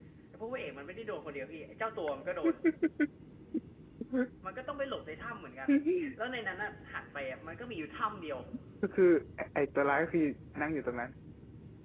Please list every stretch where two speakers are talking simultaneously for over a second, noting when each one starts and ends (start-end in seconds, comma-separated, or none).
none